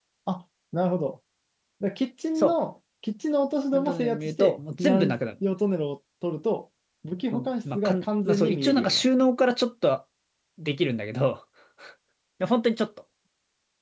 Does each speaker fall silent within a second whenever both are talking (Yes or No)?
No